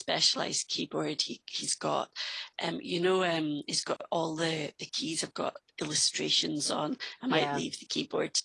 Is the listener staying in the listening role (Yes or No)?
Yes